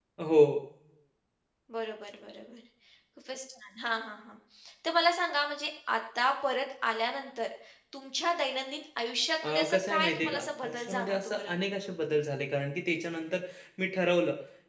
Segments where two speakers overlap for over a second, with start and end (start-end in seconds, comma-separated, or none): 9.4-11.6